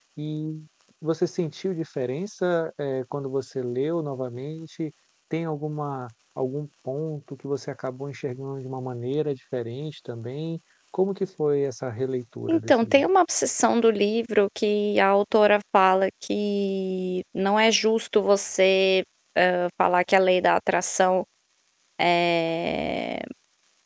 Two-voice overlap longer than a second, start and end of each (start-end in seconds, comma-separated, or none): none